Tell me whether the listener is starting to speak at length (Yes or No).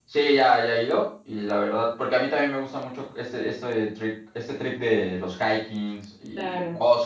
No